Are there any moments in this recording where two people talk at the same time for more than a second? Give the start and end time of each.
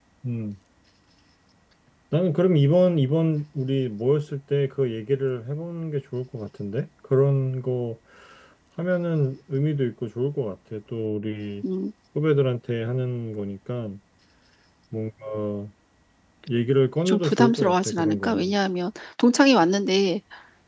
17.1-18.5

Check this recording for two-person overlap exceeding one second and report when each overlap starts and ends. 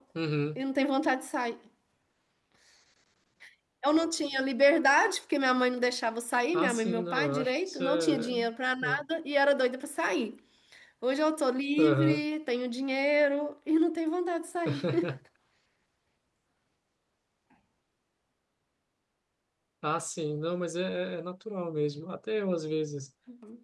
6.5-8.4

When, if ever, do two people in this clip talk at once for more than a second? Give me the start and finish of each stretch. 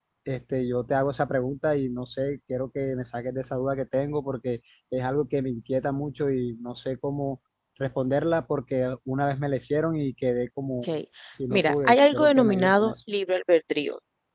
11.5-12.9

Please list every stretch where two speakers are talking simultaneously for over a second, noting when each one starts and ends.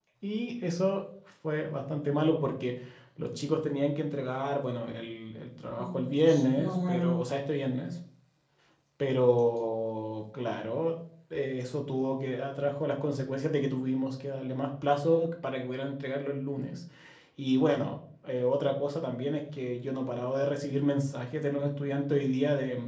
5.8-7.2

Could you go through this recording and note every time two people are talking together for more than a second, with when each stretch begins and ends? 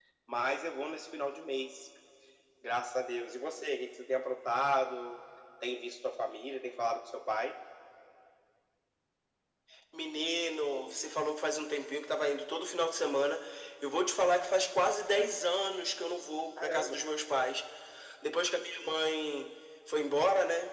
none

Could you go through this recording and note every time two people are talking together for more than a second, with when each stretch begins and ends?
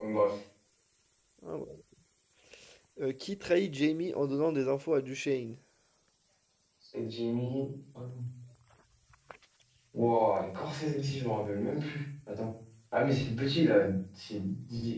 none

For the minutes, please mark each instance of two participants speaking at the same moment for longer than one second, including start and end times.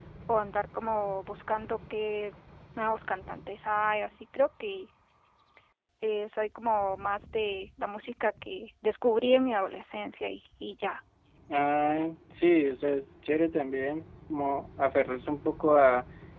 none

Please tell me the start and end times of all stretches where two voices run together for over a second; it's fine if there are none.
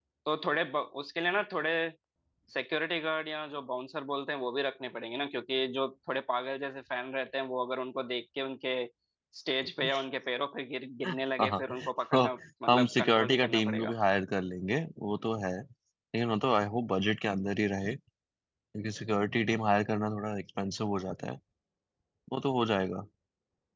12.7-13.9

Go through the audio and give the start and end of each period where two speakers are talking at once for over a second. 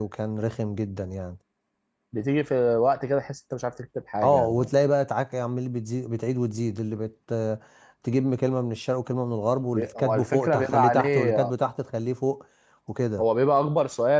9.7-11.5

